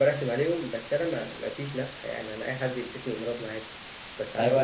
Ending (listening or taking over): taking over